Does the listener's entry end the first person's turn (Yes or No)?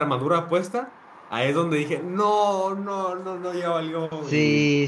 Yes